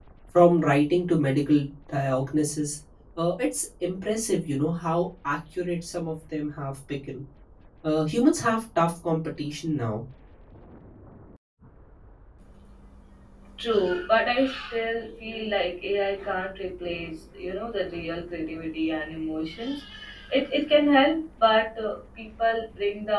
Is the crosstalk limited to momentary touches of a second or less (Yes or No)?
Yes